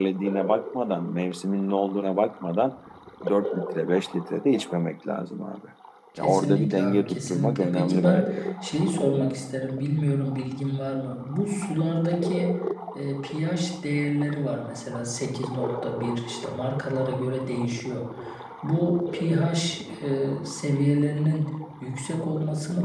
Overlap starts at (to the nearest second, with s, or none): 6 s